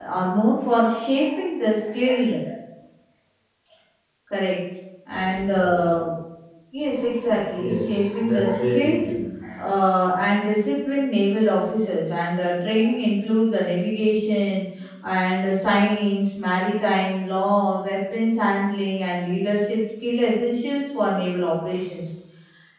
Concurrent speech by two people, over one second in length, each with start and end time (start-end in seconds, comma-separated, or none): 7.6-9.0